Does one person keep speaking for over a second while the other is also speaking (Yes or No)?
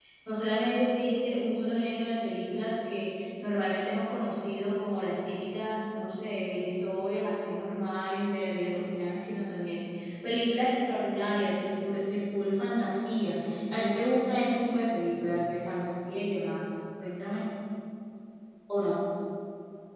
No